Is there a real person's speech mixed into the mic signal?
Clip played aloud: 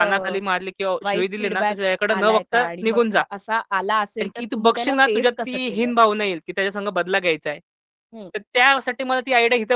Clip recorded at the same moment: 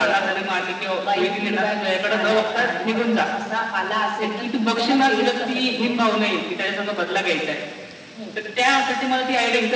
No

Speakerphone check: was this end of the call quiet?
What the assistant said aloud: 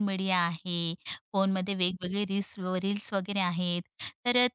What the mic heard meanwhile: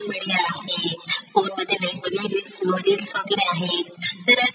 Yes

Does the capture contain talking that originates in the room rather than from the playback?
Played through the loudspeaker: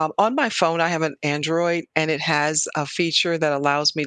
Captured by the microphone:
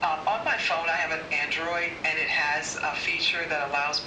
No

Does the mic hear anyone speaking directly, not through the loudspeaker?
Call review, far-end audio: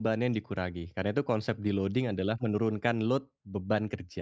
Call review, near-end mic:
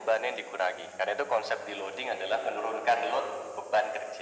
No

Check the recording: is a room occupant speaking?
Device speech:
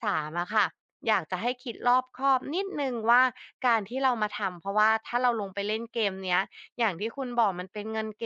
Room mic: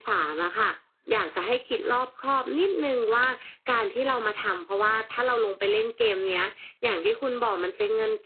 No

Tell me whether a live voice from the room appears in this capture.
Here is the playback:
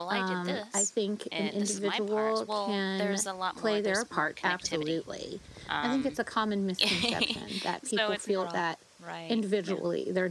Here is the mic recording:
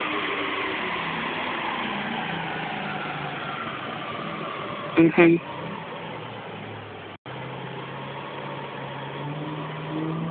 Yes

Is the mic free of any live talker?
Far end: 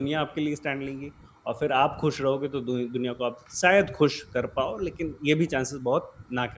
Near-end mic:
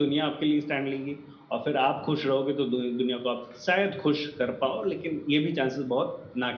Yes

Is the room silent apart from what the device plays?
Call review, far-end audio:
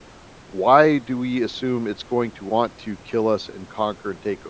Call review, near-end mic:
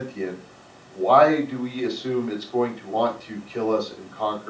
Yes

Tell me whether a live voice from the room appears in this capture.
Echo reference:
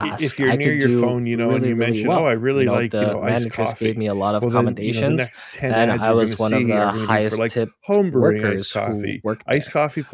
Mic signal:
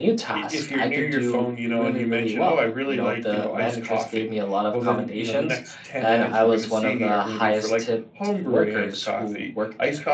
No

